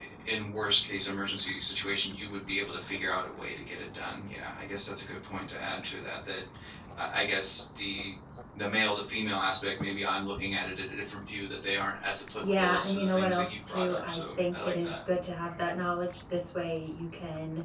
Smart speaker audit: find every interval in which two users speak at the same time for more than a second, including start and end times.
12.4-14.9

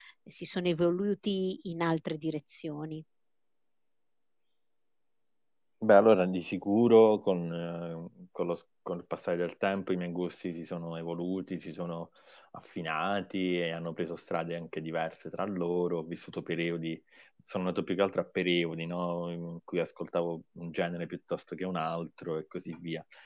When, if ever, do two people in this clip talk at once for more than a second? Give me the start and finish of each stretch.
none

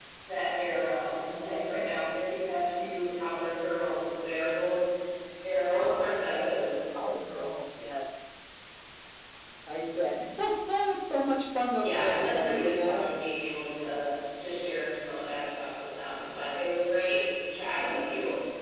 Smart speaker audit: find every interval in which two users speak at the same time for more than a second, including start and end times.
11.8-13.1

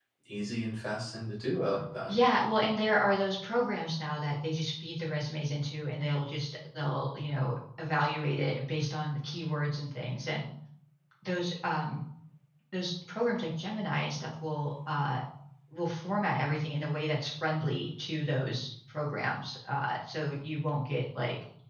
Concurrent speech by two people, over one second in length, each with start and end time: none

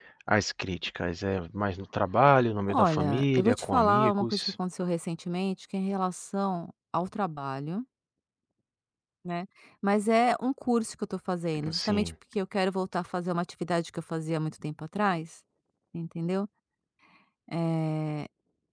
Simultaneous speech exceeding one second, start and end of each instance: 2.7-4.5

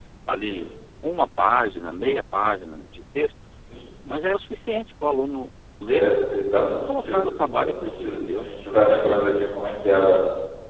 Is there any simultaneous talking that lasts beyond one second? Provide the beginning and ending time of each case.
6.7-8.9

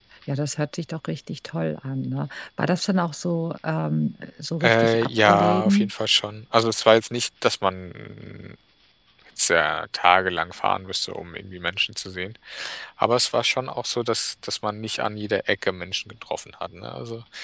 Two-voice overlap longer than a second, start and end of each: 4.6-5.9

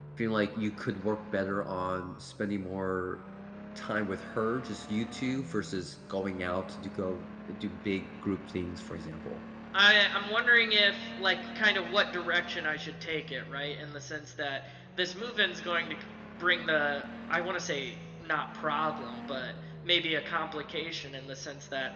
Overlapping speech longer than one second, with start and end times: none

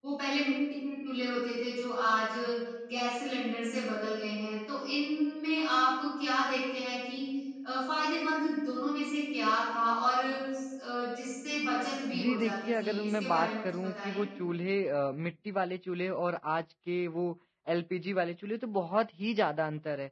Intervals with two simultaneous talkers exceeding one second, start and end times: 12.1-14.2

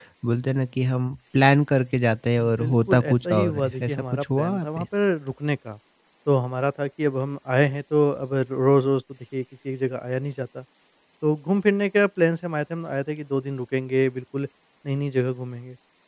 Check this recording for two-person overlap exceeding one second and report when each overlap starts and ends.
2.6-4.8

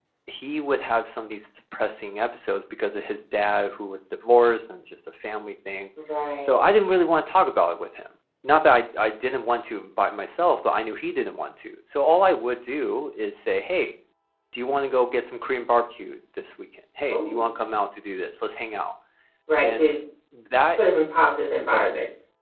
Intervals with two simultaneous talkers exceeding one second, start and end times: none

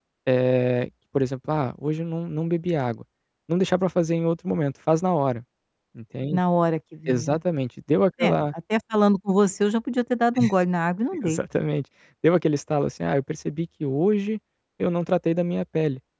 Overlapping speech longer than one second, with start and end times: none

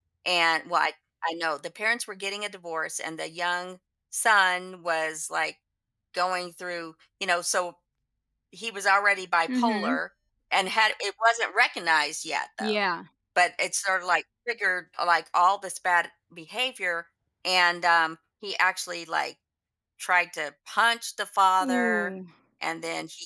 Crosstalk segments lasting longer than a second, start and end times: none

